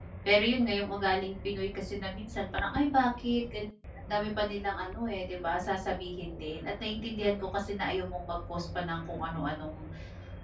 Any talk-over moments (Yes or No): No